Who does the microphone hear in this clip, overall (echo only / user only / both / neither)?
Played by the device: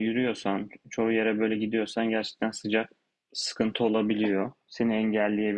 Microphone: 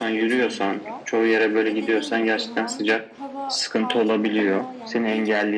both